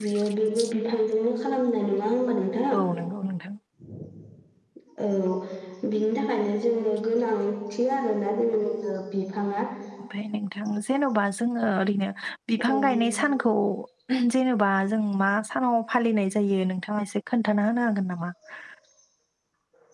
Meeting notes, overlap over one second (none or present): none